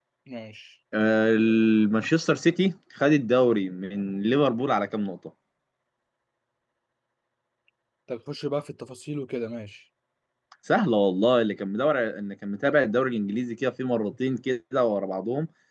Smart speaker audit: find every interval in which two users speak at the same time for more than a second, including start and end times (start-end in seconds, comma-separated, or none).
none